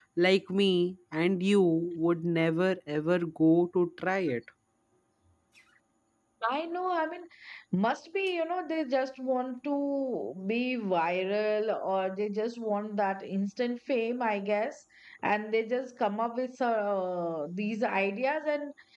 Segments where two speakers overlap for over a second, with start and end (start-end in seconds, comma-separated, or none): none